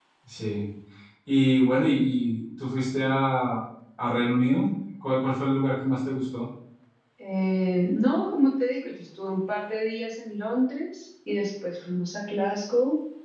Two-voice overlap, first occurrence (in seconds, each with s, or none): none